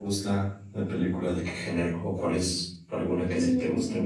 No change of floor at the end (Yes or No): No